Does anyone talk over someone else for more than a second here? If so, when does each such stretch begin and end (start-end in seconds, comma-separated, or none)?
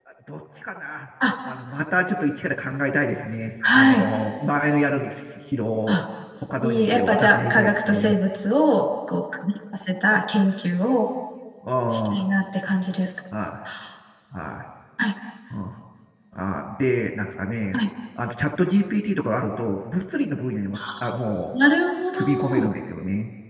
6.6-8.1